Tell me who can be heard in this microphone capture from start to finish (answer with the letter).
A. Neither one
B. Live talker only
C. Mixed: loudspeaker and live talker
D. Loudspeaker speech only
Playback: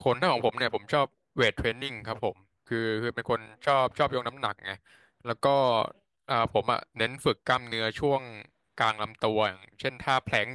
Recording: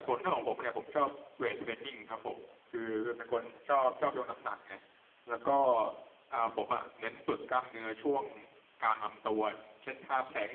D